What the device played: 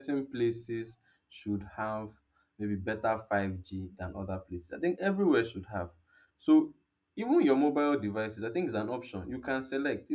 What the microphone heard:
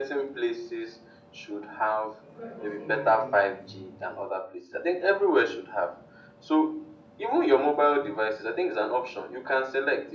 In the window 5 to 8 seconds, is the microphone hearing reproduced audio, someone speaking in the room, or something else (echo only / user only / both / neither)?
echo only